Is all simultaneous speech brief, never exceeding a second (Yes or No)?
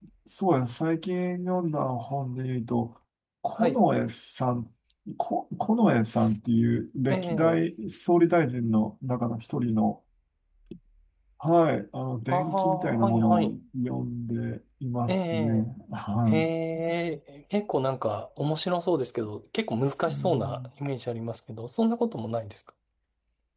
No